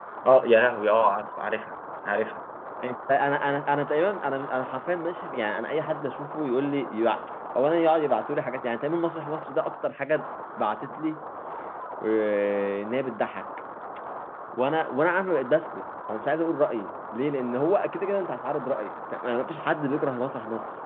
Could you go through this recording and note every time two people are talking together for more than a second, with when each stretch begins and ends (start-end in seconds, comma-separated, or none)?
none